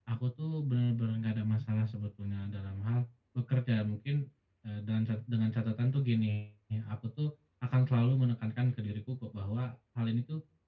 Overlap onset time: none

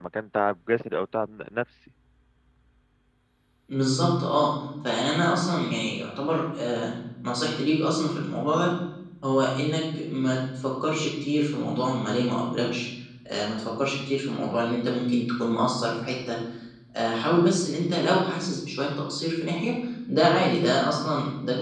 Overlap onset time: none

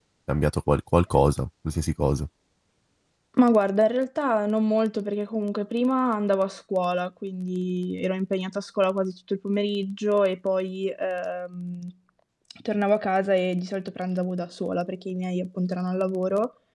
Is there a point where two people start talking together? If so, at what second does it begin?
none

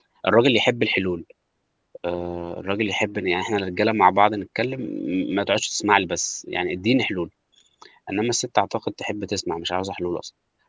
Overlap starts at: none

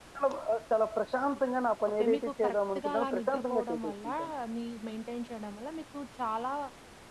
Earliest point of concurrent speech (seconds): 2 s

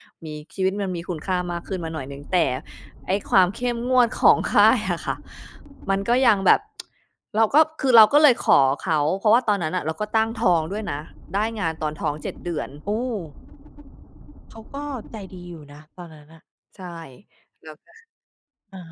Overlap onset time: none

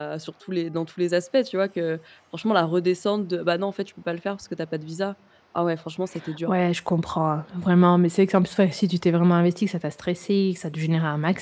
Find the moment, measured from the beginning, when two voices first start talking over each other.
none

